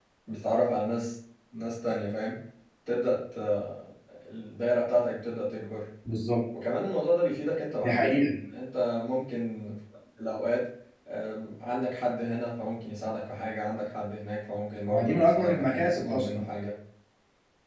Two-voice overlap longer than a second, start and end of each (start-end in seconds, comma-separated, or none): 14.9-16.5